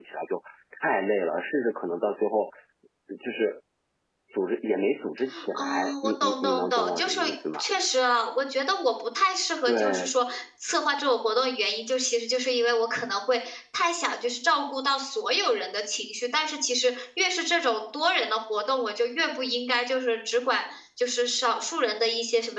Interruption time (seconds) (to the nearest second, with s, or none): 6 s